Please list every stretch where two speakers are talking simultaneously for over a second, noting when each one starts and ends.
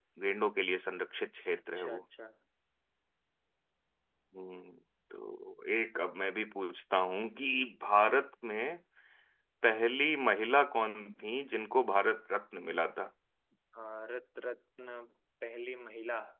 none

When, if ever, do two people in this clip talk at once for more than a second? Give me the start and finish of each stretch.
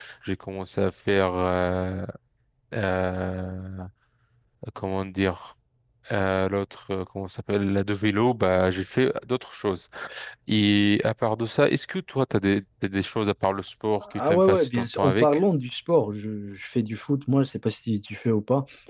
14.1-15.4

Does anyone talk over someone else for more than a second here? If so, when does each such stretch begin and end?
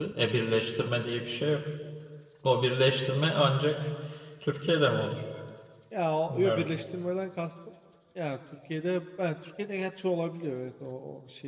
none

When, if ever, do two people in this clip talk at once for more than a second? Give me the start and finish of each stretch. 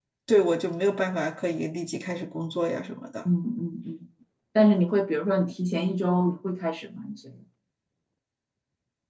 none

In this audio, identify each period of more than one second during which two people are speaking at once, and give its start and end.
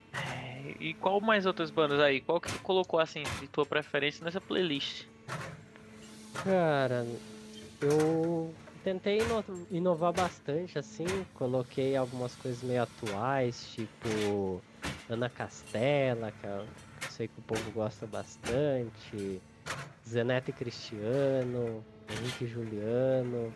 none

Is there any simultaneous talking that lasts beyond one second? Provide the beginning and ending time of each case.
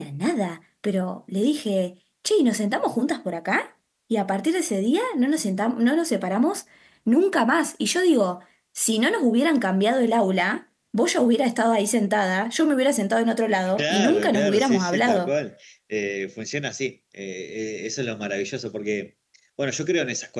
13.8-15.3

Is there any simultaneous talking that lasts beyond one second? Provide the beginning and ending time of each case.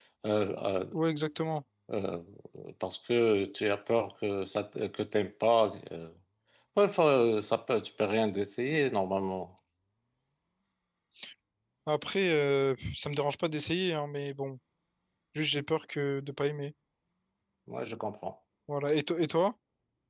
none

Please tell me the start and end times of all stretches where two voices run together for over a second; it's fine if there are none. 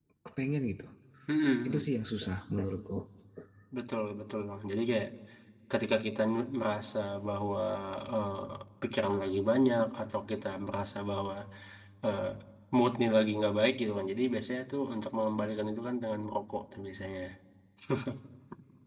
none

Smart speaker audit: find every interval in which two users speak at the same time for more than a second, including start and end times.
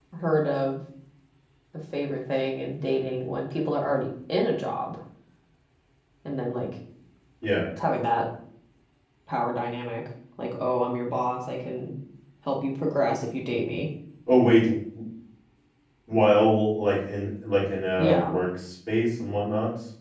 none

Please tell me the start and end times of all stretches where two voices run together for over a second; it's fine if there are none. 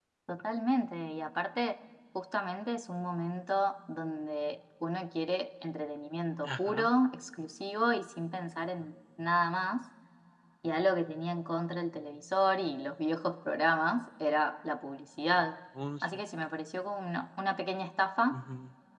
none

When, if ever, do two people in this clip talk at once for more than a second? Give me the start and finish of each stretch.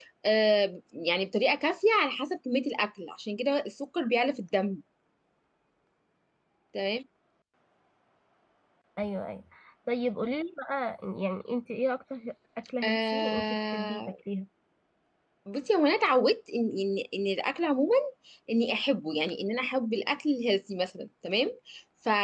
12.8-14.1

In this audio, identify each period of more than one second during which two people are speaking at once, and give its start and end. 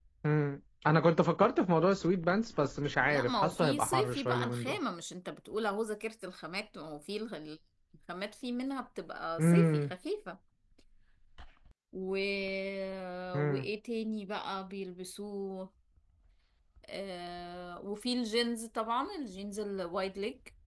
3.1-4.8

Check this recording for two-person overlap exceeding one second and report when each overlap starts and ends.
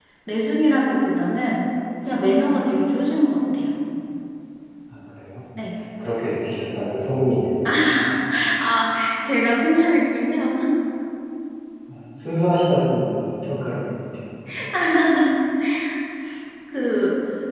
none

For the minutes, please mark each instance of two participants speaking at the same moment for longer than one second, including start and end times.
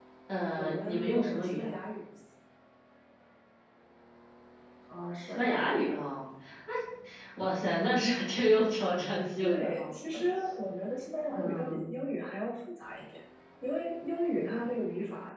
0.6-1.8

